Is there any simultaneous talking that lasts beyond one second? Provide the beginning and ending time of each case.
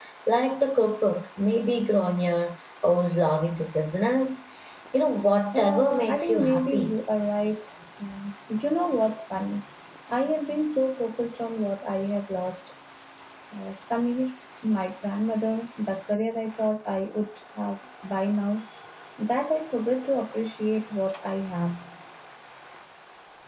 5.5-7.0

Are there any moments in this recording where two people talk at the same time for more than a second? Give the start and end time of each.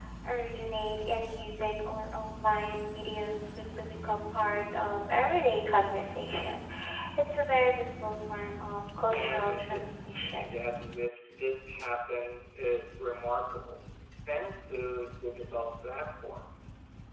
9.1-10.5

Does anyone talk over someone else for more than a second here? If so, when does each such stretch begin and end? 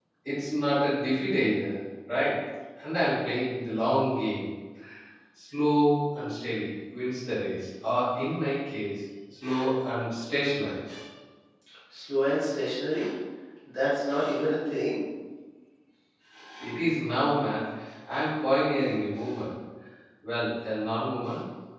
none

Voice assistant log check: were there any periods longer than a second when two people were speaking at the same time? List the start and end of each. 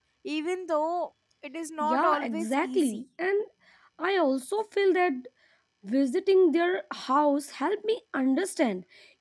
1.8-3.0

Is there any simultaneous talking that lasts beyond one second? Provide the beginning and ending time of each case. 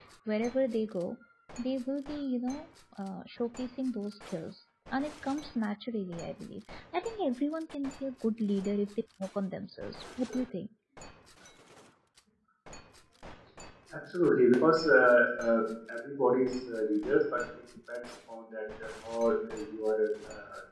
none

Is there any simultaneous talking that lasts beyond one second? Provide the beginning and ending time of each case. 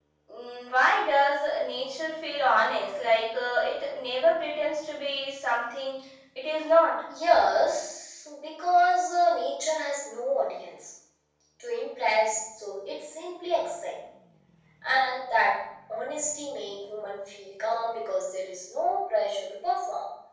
none

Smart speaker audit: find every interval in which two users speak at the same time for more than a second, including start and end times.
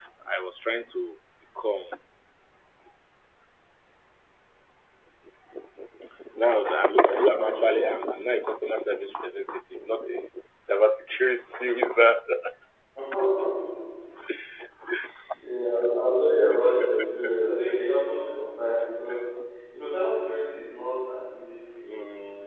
none

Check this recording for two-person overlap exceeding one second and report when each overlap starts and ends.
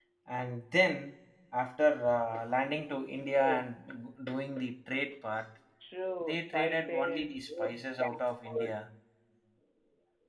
6.2-8.7

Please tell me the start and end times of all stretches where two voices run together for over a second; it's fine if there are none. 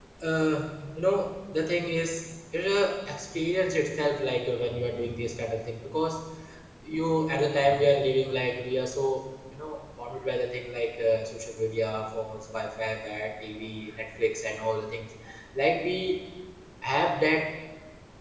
none

